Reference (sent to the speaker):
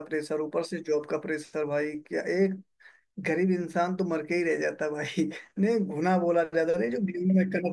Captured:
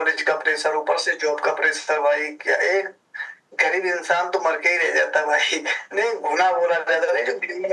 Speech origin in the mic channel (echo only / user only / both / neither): echo only